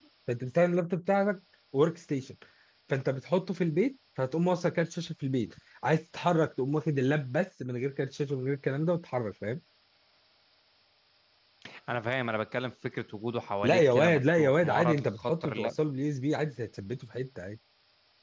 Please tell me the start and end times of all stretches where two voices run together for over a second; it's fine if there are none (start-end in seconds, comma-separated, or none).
13.6-15.5